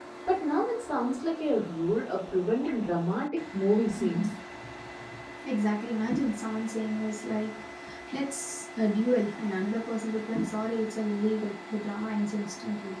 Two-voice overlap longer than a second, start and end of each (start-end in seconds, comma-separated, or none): none